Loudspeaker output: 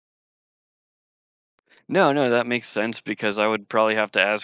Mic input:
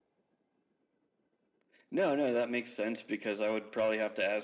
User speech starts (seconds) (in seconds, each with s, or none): none